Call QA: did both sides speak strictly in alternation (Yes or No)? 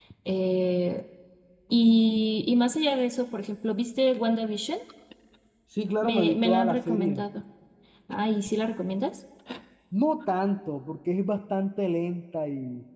No